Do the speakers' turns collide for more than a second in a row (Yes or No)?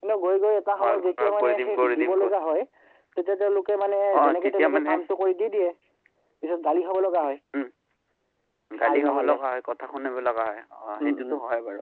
Yes